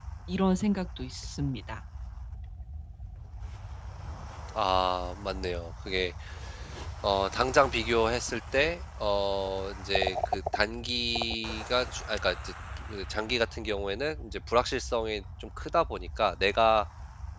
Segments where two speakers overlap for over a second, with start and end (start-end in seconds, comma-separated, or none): none